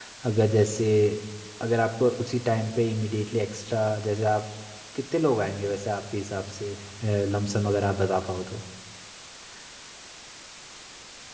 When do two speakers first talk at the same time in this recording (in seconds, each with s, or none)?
none